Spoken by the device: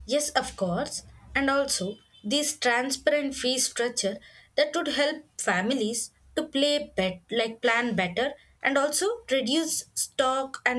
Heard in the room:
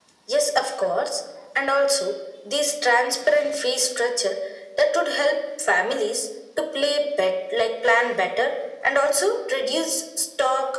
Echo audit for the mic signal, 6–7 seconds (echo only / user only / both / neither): echo only